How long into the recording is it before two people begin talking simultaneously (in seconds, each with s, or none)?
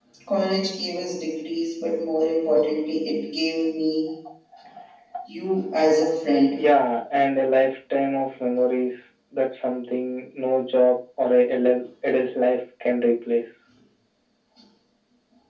none